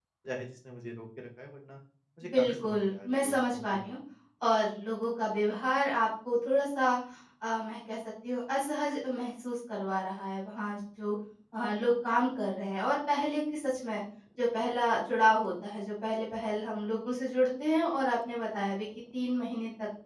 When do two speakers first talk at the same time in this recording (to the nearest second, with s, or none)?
2 s